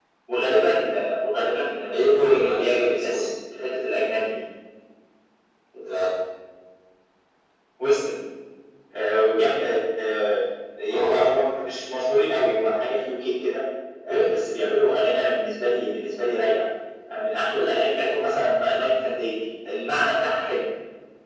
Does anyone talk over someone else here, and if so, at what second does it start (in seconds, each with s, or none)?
1.9 s